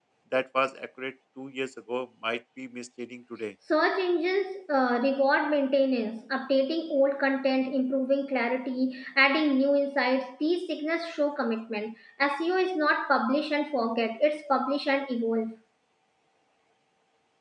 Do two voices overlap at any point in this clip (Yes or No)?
No